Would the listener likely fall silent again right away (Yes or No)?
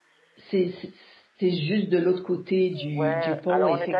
No